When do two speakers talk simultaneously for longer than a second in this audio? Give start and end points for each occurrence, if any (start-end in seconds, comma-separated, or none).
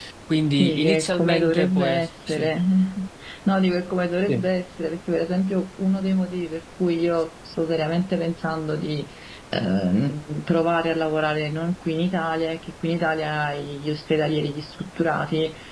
0.5-2.5